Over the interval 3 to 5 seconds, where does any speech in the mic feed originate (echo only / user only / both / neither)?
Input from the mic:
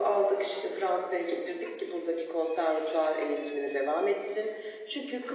echo only